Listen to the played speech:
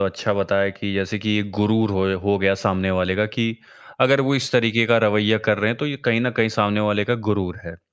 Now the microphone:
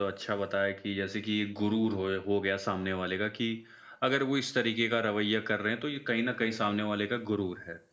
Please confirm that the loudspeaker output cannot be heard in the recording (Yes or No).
No